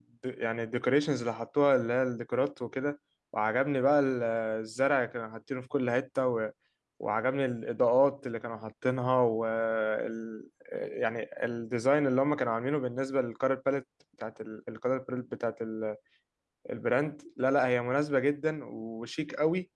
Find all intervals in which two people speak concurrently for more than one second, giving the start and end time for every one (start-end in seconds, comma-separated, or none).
none